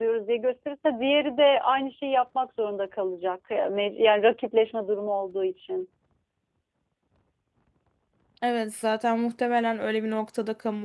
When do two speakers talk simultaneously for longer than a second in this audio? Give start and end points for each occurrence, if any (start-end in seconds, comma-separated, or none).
none